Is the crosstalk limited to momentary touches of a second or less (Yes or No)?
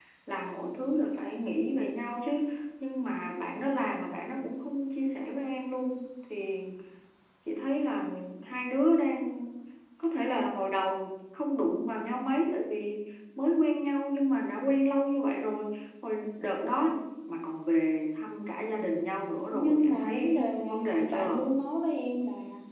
No